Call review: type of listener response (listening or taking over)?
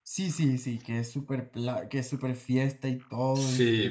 taking over